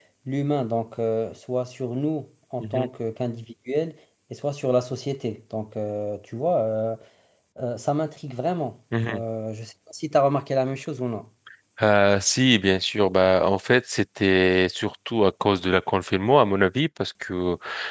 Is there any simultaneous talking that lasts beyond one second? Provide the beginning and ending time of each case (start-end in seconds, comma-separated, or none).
none